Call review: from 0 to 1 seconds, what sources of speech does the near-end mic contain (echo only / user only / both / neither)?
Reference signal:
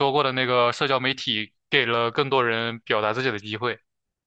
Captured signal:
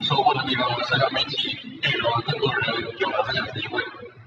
echo only